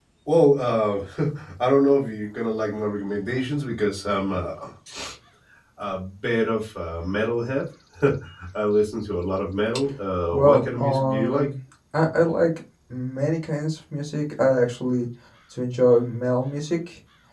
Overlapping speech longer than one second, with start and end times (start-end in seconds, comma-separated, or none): 10.3-11.5